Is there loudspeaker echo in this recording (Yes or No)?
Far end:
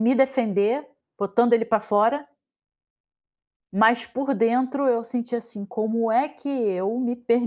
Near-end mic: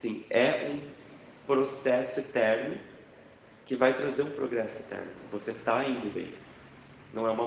No